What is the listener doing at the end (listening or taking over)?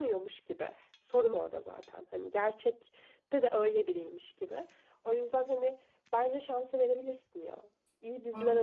listening